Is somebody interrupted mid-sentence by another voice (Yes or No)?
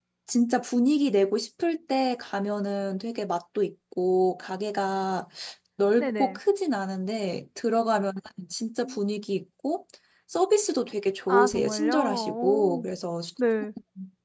Yes